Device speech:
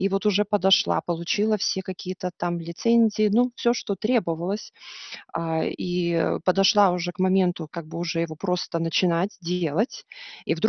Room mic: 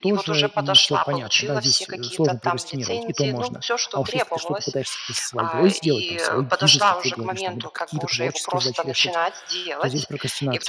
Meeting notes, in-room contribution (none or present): present